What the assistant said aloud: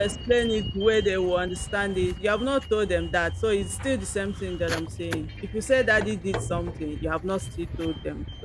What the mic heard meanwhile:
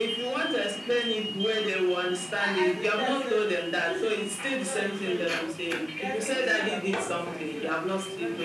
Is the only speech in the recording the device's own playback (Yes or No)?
No